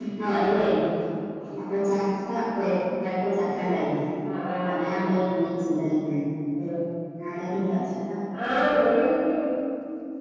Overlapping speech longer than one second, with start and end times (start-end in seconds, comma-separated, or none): none